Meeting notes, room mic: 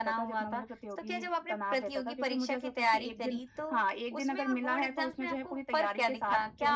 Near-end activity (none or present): none